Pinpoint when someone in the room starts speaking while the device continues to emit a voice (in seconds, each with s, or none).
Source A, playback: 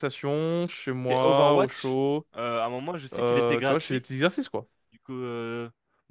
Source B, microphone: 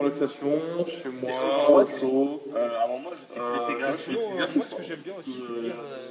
3.8 s